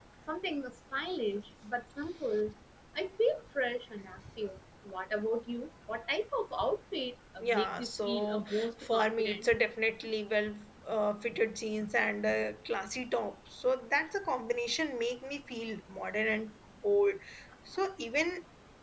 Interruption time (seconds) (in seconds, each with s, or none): 7.4 s